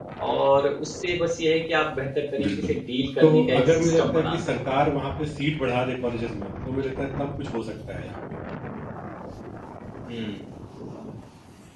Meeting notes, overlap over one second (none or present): present